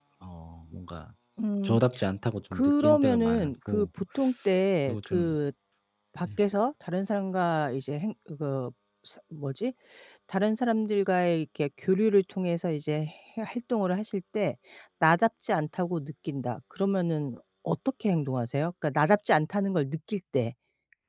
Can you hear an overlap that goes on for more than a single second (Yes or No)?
Yes